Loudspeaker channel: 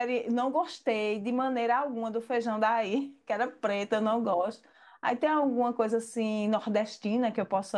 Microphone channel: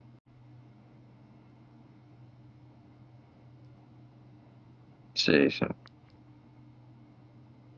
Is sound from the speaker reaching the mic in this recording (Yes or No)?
No